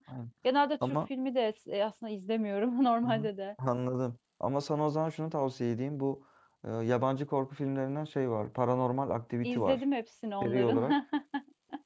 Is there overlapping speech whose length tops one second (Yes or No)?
No